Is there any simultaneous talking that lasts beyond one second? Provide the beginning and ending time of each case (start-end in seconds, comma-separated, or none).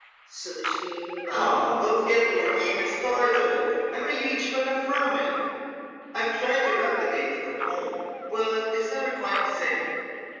1.4-2.8